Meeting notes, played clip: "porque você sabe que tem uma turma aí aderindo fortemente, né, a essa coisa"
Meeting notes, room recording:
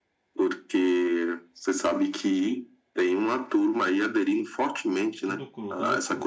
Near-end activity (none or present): present